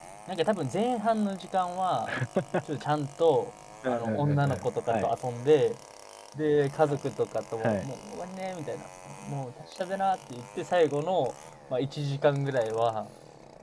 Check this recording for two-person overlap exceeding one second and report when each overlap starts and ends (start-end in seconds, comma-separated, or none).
3.9-5.1